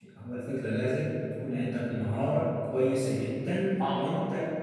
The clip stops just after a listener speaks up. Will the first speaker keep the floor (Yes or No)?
Yes